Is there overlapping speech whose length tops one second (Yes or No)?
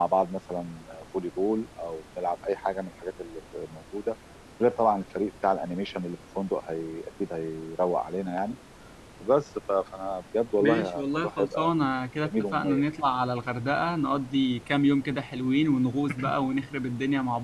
Yes